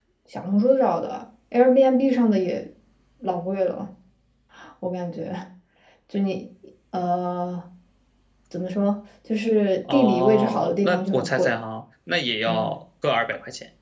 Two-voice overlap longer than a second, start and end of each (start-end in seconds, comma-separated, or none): 9.9-11.5